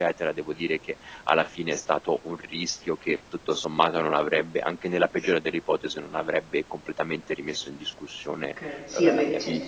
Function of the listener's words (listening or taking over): taking over